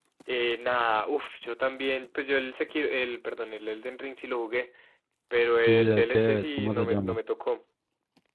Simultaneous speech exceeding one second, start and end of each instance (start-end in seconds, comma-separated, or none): 5.7-7.2